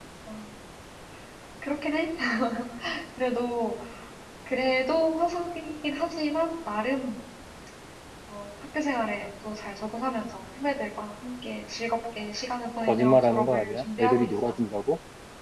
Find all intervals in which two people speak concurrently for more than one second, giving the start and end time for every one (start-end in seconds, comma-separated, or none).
12.8-14.6